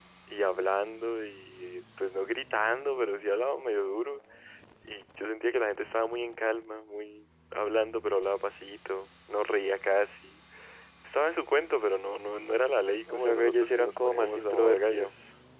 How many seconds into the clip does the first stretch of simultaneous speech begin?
13.1 s

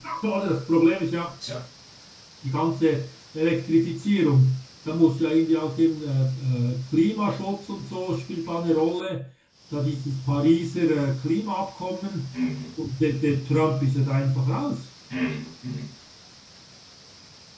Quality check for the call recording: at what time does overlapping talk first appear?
none

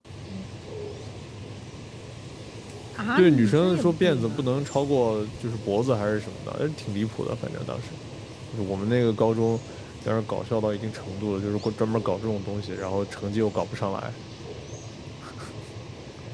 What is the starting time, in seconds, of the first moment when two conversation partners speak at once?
3.2 s

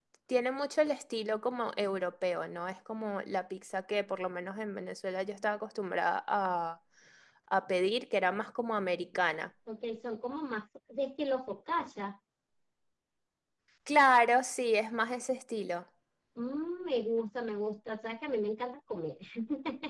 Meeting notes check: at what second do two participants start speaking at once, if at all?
none

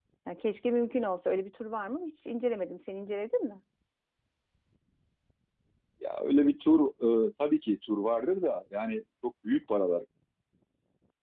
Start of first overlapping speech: none

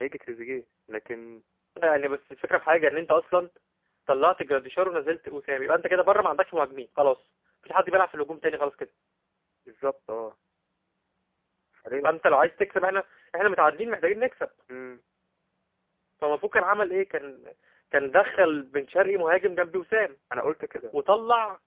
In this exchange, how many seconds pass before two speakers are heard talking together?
none

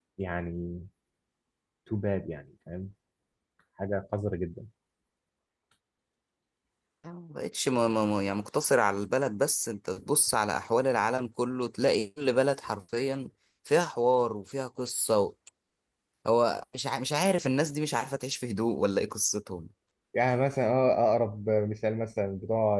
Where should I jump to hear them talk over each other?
none

